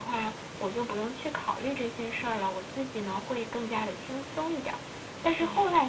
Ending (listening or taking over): listening